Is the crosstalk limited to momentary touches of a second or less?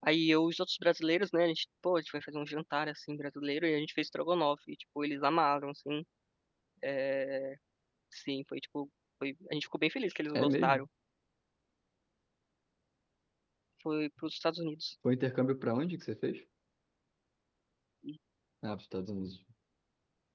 Yes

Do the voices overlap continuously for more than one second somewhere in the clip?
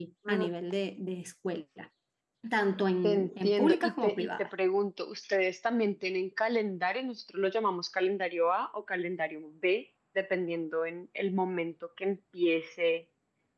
Yes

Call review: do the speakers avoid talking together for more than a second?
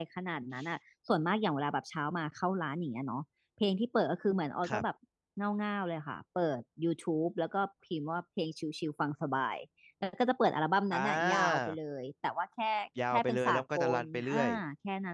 No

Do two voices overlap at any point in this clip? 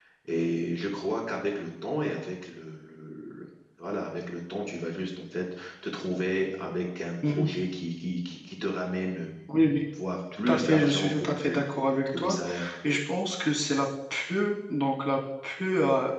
Yes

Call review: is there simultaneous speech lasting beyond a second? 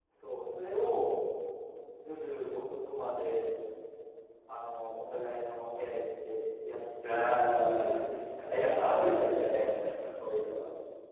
Yes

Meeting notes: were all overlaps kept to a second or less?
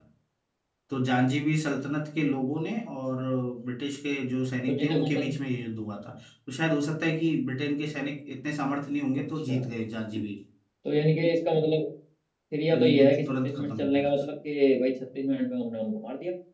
No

